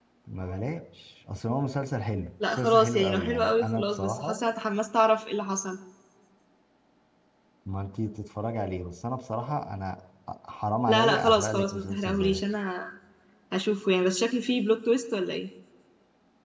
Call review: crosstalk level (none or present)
present